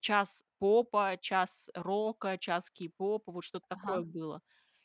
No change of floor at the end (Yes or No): Yes